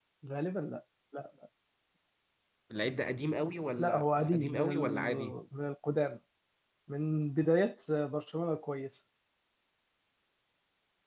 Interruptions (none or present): present